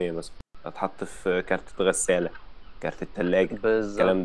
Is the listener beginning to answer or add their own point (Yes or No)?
Yes